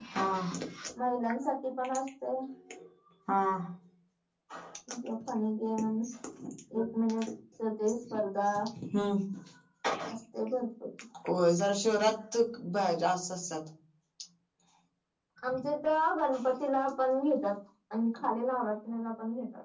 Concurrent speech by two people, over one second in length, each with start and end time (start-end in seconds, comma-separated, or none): none